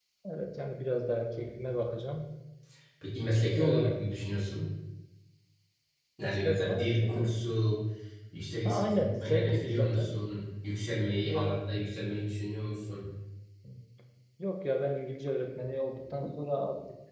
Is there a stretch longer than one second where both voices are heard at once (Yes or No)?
Yes